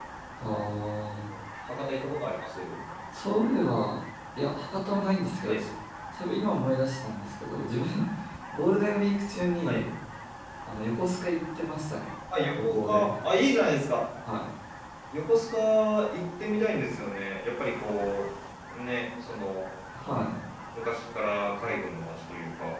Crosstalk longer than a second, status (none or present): none